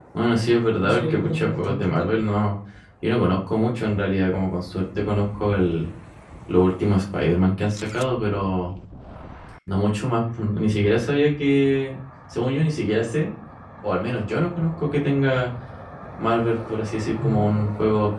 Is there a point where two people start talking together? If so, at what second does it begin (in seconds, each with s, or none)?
0.8 s